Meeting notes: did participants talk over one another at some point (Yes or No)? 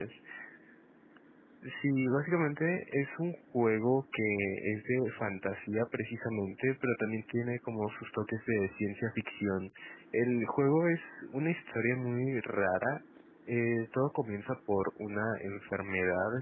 No